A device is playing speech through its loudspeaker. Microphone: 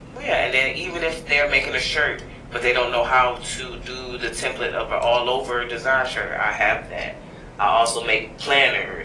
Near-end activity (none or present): none